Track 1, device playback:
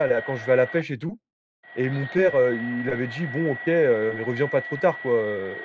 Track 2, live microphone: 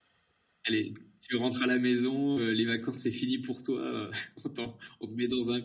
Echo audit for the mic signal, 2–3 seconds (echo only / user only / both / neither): user only